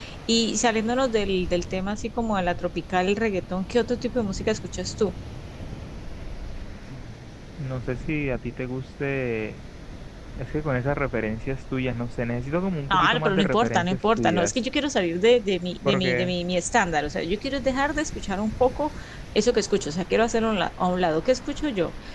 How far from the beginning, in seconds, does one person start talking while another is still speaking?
12.9 s

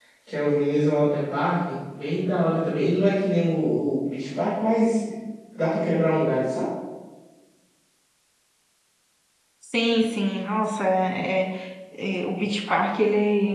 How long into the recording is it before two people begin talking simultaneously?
none

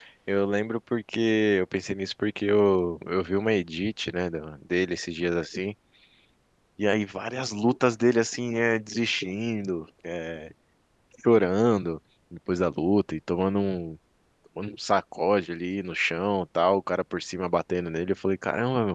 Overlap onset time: none

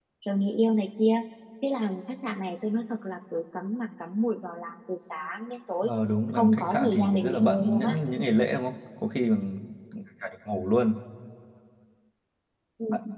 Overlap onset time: 6.3 s

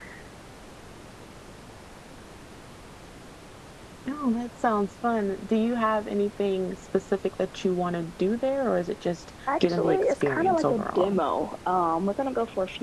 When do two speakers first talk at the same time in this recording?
9.5 s

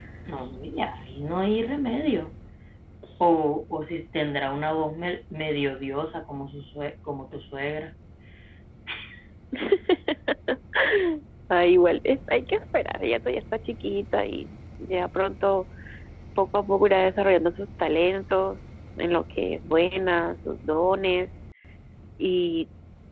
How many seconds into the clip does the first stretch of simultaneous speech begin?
none

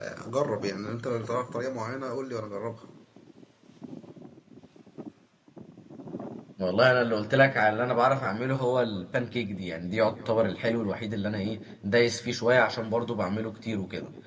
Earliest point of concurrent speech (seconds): none

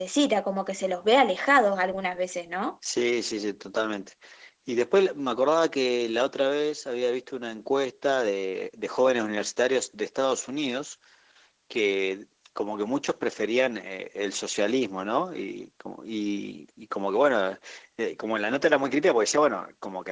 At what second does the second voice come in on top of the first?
none

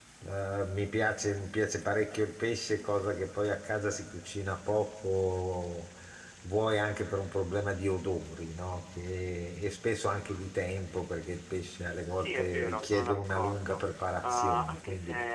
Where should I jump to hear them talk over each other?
12.1 s

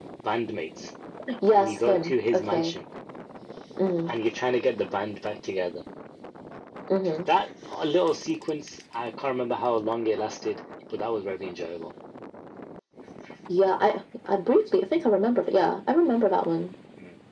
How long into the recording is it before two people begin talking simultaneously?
1.5 s

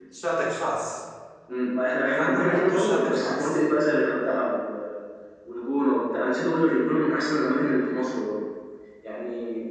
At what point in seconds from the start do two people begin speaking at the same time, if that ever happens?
2.2 s

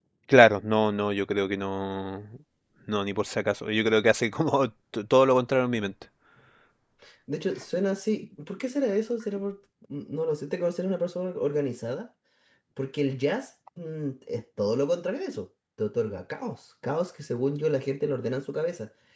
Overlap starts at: none

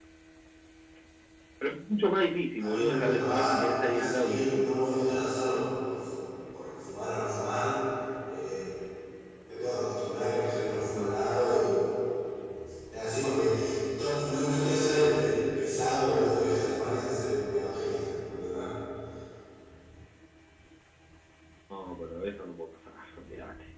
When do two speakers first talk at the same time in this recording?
2.6 s

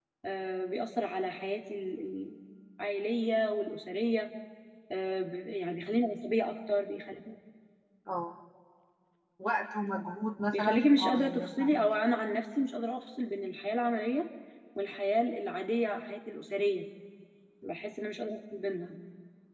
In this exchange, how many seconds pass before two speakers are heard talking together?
10.5 s

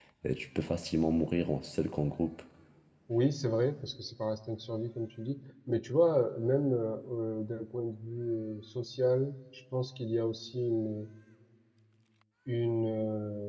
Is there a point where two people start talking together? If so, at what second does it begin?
none

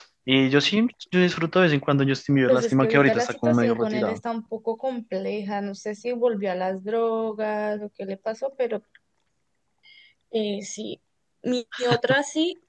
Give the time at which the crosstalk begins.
2.5 s

